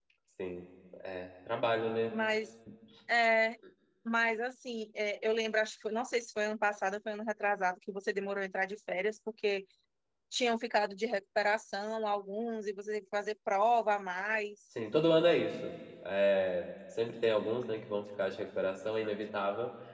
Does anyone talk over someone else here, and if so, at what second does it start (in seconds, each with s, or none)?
none